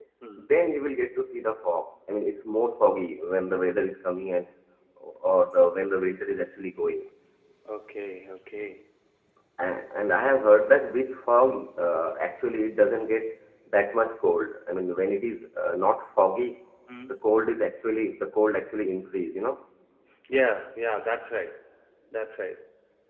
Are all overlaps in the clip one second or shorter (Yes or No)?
Yes